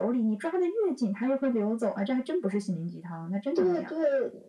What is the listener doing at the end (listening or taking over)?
taking over